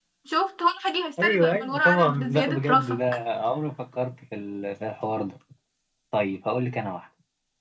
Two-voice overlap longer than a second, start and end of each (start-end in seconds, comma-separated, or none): 1.2-3.0